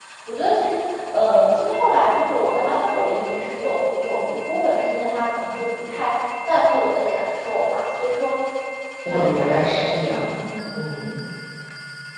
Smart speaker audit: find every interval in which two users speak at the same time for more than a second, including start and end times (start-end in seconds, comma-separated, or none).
9.0-10.3